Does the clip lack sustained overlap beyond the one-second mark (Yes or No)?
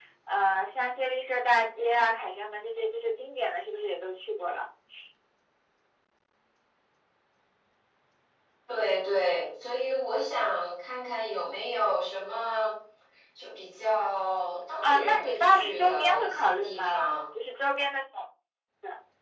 No